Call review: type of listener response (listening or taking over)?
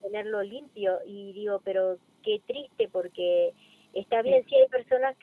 listening